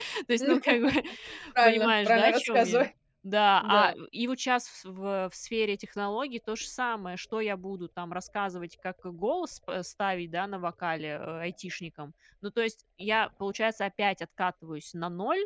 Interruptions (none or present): present